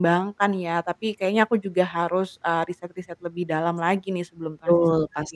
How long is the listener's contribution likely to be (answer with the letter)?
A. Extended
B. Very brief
A